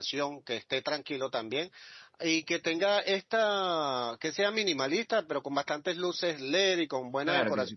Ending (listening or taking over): taking over